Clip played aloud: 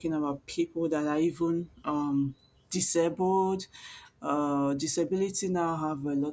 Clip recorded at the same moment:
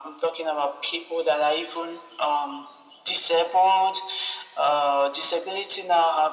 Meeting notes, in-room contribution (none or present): none